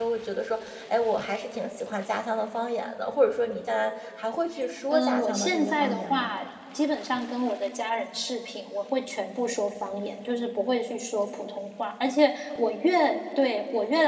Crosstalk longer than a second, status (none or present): present